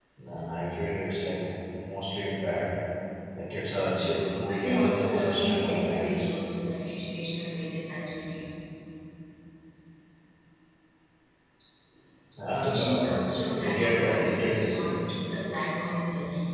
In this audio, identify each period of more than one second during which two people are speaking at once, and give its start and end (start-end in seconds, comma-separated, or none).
4.3-6.3, 13.4-14.9